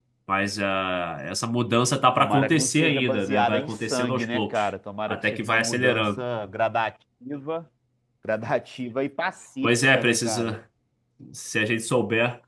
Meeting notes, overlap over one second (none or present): present